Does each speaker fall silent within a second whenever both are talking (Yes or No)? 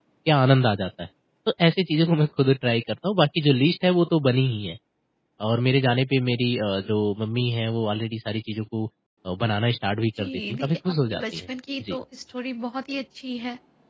No